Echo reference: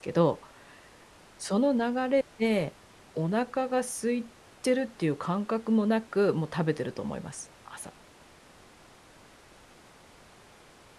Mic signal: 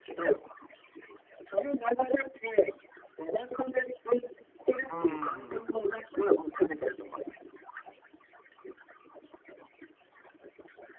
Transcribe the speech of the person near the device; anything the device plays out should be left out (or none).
うーん、